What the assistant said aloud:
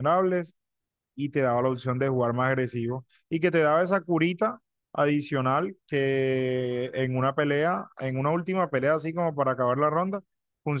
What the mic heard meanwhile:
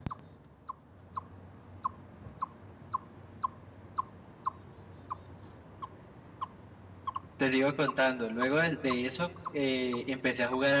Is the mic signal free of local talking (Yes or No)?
No